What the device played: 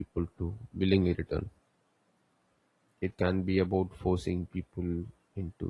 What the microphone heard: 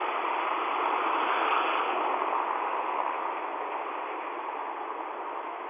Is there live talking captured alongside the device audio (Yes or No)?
No